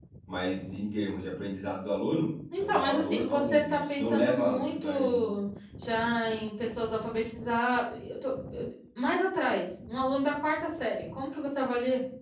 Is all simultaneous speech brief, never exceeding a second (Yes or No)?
No